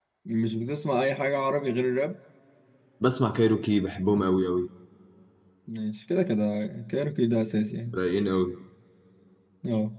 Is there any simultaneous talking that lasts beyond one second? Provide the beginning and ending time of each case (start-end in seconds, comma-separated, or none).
none